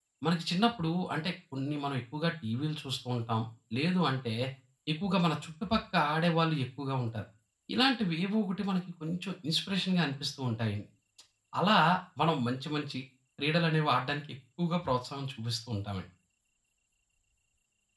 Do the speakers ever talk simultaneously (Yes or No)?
No